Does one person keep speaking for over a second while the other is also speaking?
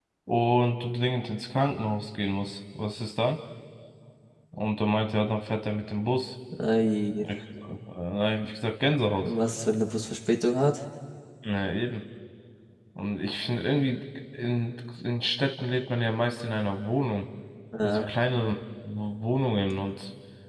No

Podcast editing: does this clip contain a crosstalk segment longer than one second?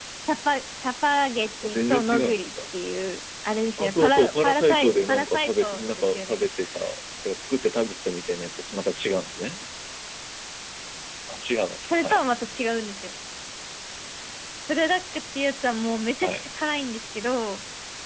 Yes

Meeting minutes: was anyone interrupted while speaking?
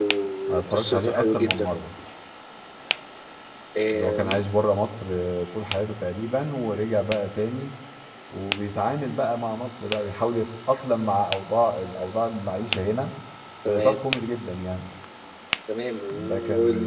Yes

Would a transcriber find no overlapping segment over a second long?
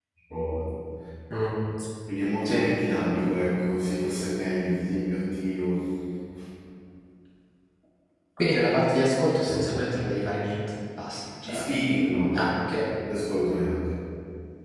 Yes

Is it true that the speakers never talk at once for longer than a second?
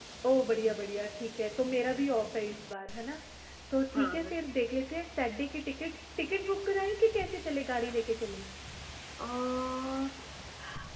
Yes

